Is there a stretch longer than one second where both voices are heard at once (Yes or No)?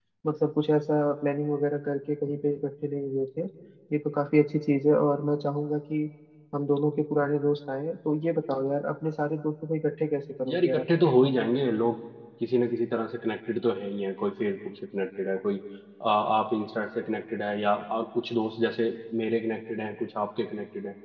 No